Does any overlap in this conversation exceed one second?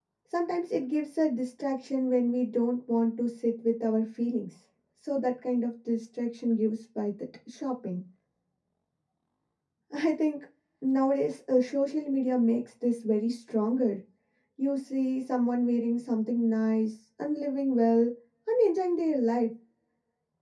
No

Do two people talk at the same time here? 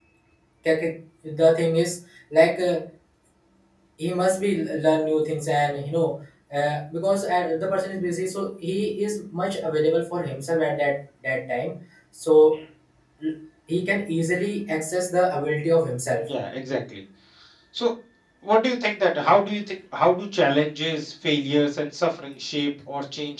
No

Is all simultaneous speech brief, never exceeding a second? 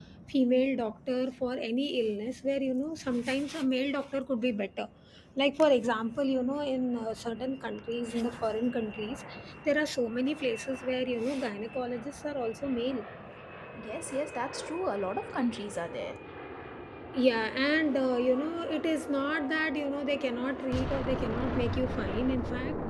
Yes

